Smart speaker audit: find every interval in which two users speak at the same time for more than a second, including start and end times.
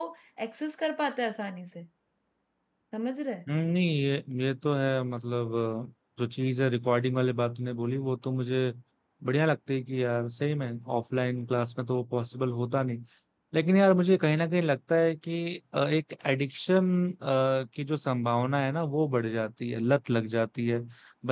none

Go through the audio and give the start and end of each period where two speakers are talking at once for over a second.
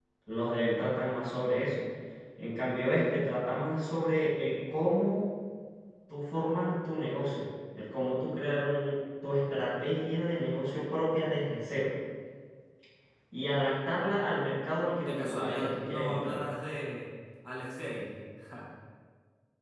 14.9-16.4

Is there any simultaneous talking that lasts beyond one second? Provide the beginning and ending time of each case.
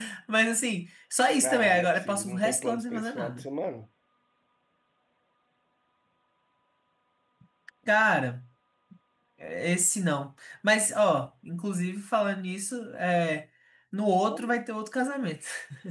1.4-3.5

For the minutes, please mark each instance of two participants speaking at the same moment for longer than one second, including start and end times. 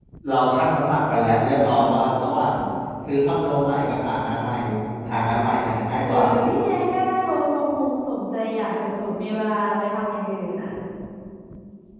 none

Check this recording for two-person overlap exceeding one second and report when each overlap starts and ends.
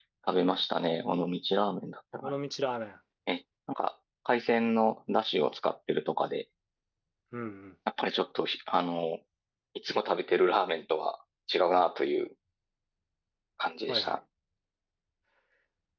none

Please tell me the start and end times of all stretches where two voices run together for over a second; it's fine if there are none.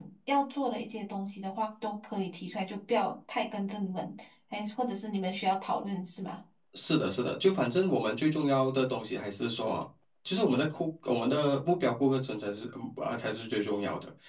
none

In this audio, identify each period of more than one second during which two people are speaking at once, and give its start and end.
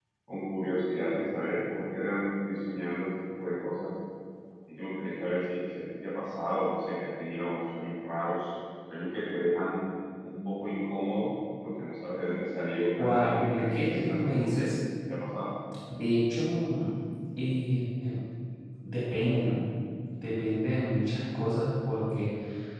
13.0-14.6

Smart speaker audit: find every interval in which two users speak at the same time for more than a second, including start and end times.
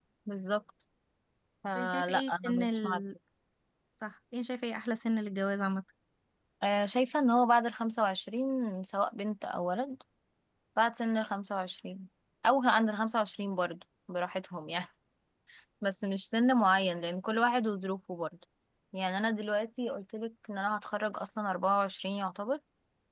1.8-3.0

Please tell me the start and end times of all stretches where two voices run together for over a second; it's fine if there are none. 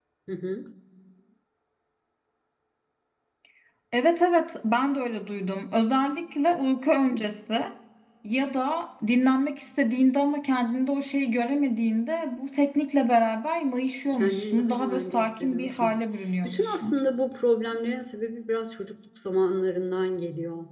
14.1-15.9

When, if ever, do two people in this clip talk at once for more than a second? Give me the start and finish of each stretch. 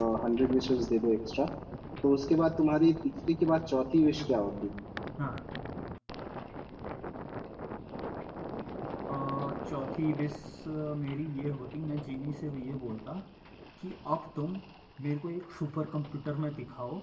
none

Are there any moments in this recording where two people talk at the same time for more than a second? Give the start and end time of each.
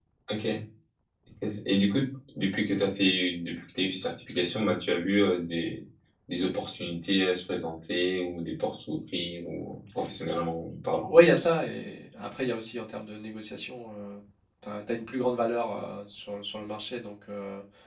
none

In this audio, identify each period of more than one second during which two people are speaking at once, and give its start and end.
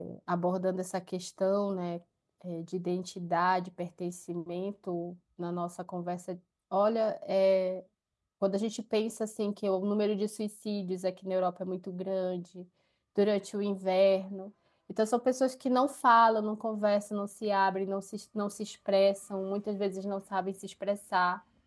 none

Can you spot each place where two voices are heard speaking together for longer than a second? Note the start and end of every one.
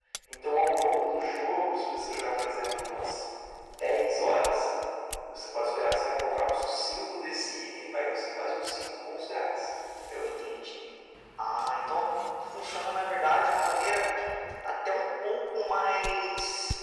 none

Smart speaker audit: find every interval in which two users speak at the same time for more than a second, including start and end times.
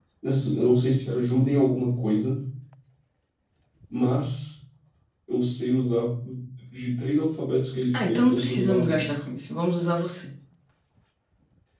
7.9-9.2

